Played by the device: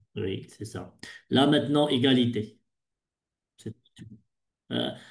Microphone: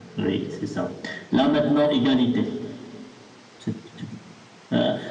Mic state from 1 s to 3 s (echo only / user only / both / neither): echo only